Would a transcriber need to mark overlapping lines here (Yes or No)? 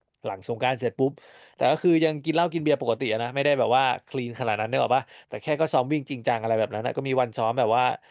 No